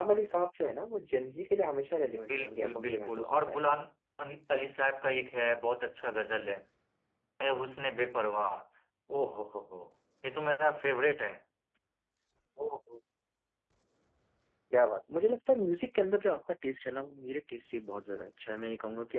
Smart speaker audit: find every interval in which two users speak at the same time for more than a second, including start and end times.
2.3-3.6

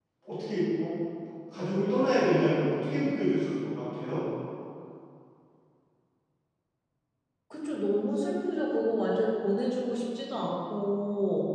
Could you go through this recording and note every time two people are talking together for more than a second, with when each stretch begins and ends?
none

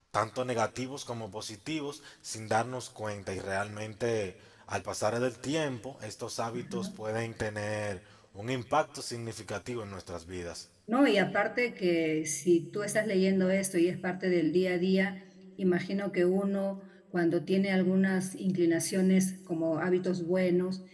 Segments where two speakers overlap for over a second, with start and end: none

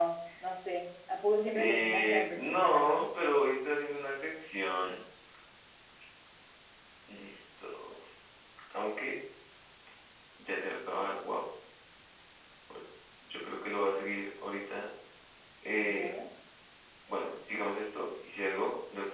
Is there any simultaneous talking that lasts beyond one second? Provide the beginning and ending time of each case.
1.5-2.9

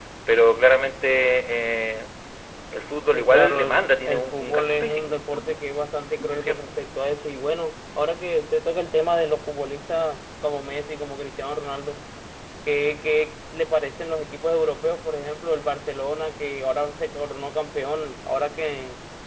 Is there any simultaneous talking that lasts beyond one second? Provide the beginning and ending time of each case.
3.1-5.1

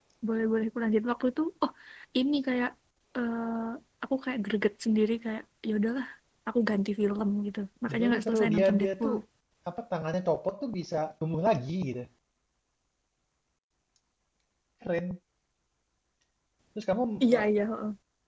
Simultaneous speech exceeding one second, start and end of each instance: 7.9-9.2

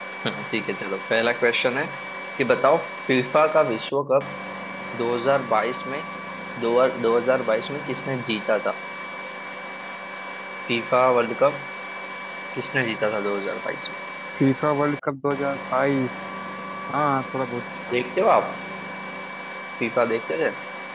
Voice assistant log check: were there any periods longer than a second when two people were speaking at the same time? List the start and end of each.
none

